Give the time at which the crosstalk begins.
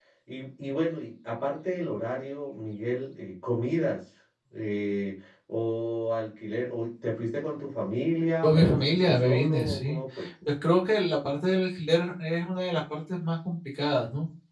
8 s

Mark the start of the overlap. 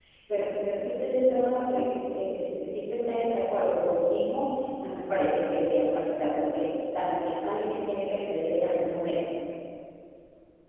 none

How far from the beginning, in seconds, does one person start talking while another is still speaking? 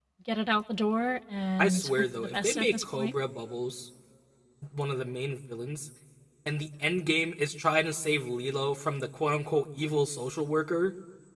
2 s

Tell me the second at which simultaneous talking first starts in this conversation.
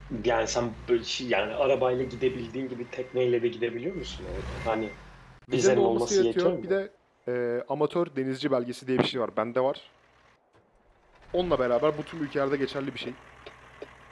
6 s

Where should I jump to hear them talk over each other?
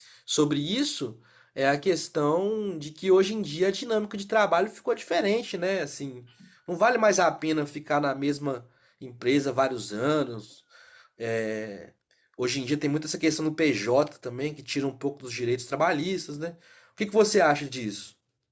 none

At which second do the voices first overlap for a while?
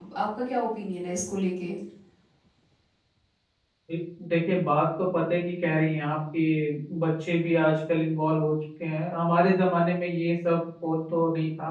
none

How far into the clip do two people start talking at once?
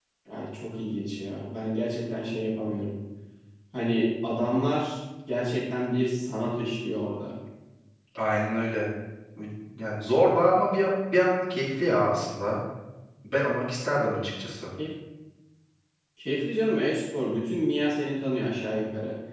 none

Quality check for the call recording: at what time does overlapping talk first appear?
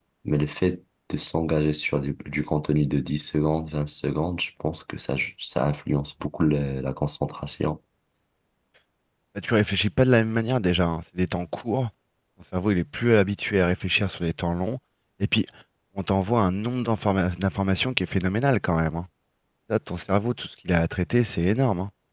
none

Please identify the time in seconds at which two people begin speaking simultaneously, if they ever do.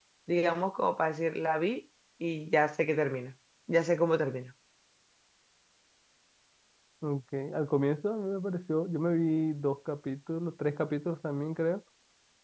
none

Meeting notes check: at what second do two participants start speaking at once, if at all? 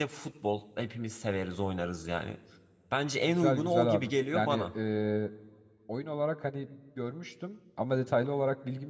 3 s

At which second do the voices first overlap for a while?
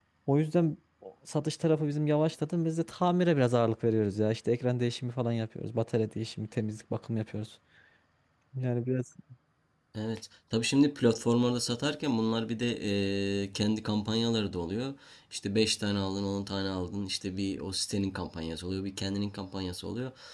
none

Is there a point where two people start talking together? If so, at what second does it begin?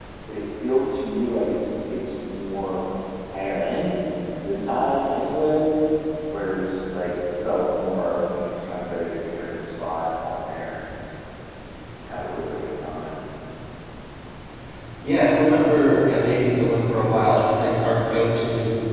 none

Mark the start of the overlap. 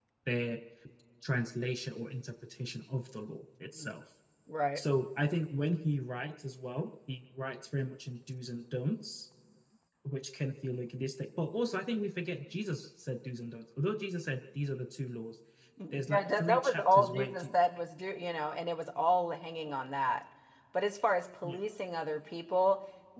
16 s

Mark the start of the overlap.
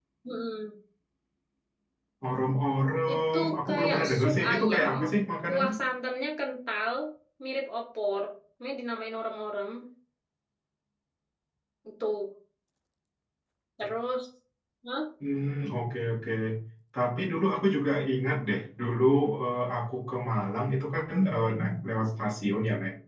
3 s

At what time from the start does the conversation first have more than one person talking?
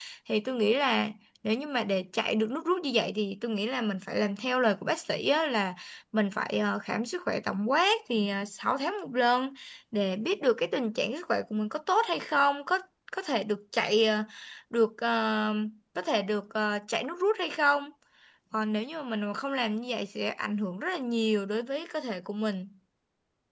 none

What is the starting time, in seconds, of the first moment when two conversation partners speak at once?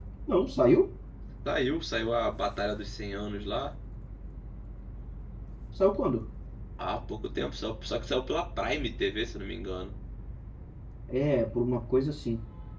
none

